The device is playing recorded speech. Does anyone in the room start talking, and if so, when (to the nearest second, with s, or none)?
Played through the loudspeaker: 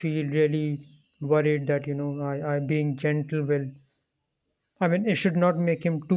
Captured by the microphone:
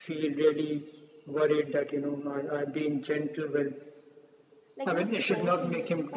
5 s